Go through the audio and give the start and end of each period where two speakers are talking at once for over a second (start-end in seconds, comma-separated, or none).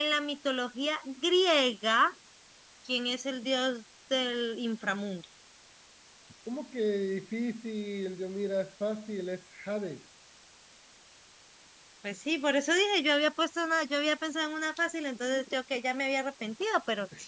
none